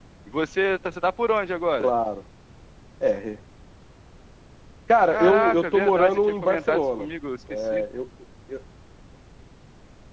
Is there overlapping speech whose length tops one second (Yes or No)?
Yes